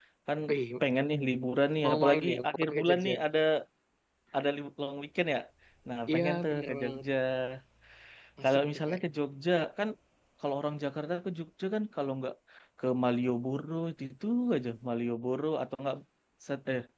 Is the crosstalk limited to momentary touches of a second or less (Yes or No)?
No